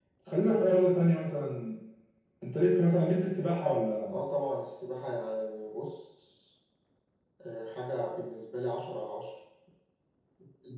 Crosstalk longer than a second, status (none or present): none